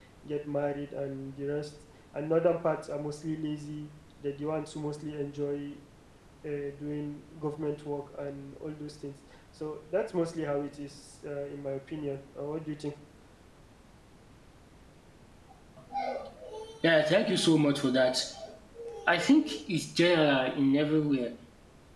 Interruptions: none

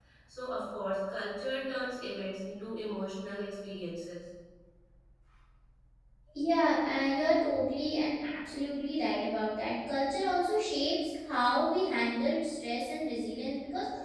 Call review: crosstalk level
none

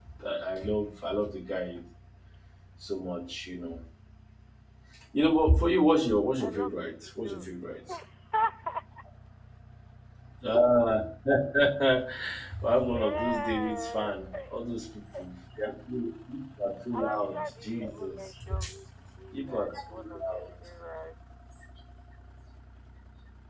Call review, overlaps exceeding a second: present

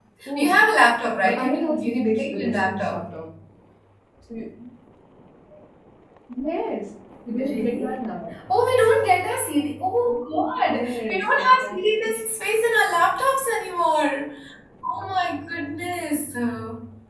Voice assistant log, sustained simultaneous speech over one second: present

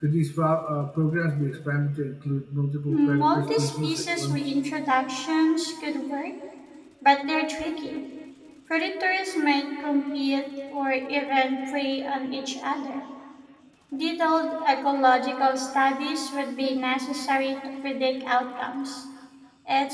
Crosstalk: present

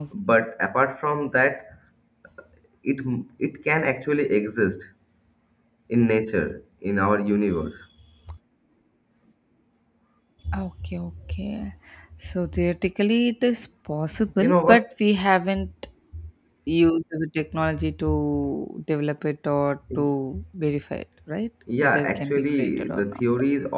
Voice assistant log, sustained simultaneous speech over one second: present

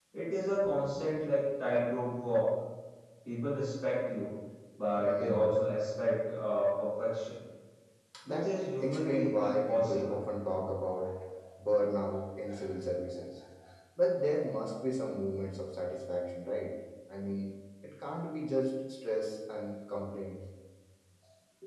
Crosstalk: present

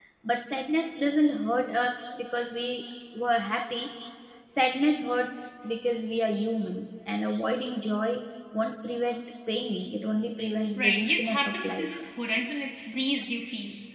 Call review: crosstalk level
present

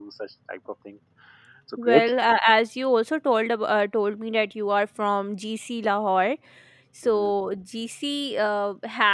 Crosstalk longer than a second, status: none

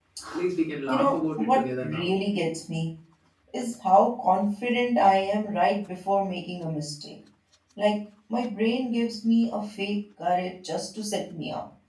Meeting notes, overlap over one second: present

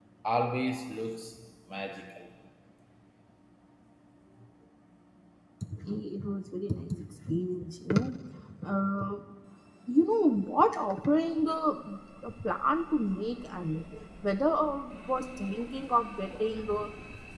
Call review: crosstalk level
none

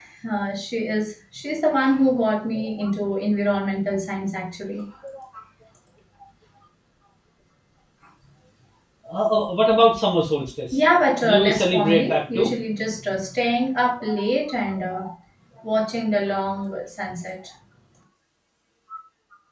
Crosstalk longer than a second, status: present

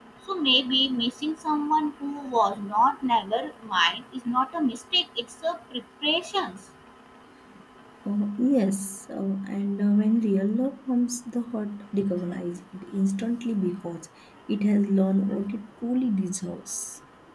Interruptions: none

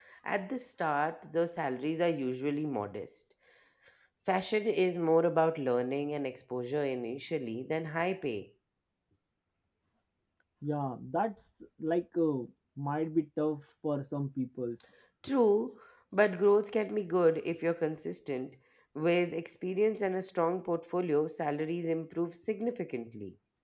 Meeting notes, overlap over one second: none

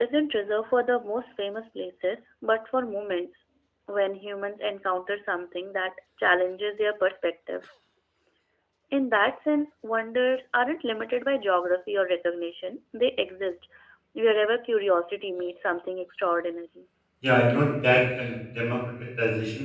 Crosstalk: none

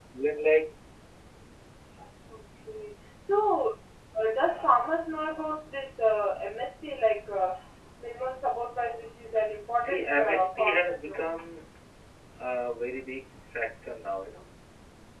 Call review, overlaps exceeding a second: present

